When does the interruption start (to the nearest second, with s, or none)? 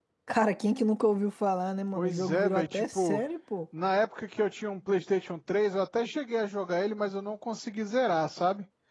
2 s